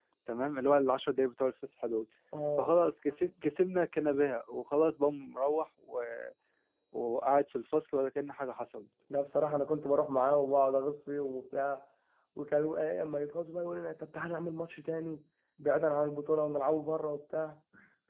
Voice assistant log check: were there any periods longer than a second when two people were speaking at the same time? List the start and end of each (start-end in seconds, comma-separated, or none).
none